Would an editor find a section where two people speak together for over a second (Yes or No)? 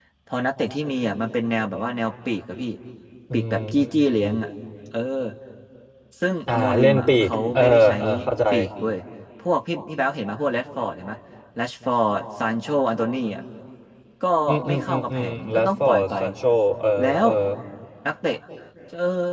Yes